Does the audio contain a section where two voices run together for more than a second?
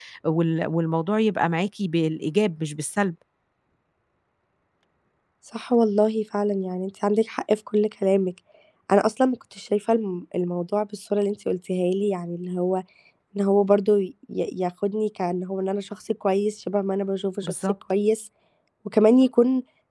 No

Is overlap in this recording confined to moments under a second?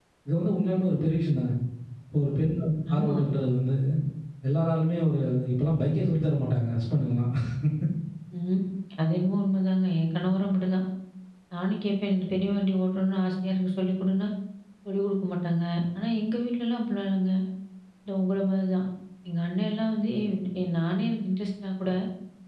Yes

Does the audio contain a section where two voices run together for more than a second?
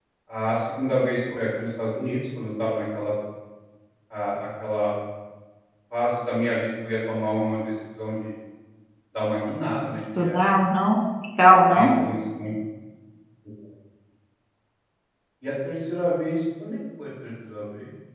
No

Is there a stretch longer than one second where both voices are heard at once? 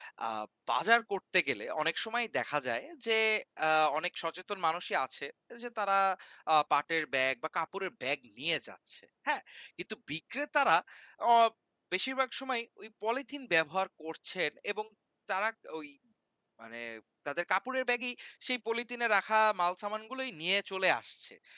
No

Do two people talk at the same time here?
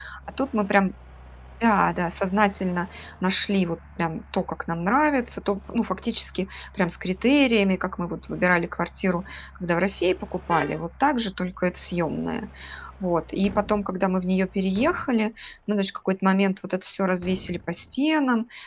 No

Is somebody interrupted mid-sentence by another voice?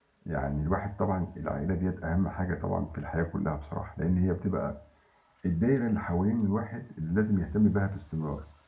No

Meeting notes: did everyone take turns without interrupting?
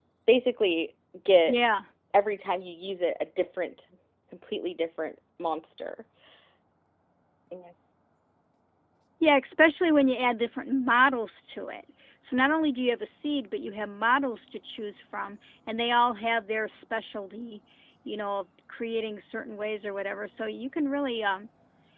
Yes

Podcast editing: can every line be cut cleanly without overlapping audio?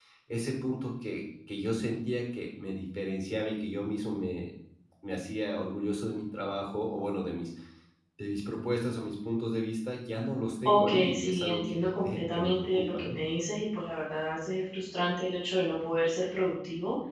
No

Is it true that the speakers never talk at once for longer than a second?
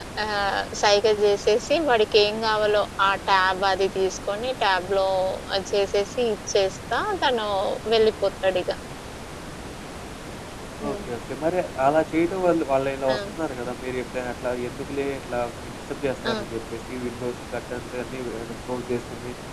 Yes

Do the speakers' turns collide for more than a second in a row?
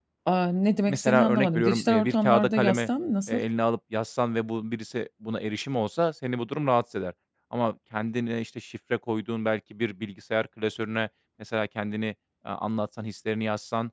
Yes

